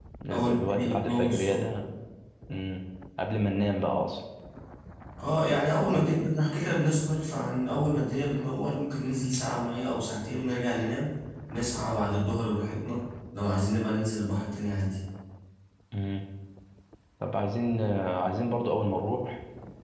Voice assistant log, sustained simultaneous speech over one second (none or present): present